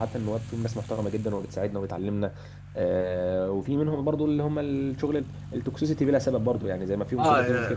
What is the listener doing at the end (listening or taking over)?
taking over